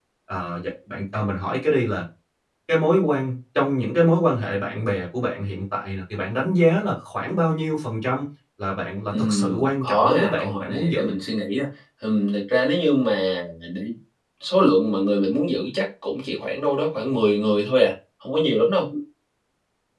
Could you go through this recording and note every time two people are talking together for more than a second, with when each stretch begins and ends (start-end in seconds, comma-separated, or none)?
9.1-11.1